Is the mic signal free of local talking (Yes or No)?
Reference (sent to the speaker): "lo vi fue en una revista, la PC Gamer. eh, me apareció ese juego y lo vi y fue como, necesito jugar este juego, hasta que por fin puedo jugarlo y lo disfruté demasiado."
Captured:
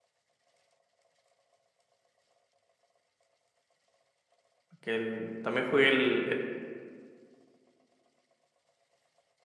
No